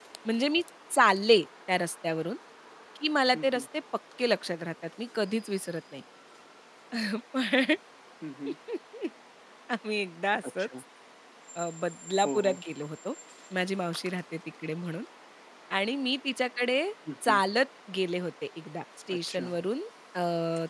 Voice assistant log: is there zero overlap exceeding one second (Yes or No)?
Yes